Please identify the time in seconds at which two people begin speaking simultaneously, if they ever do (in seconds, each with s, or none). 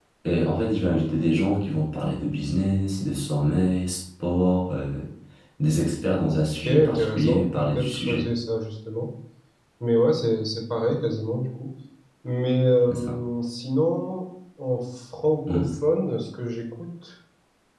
6.6 s